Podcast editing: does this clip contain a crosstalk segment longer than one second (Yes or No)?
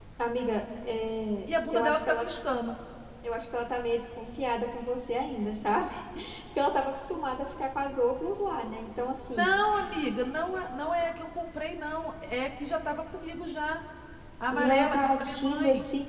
Yes